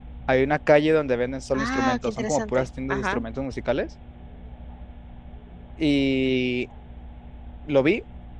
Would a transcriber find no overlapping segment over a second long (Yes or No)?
No